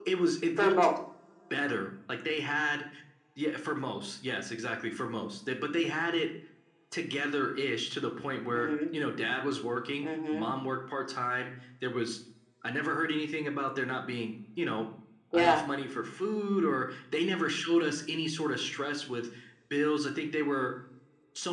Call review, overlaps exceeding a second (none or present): none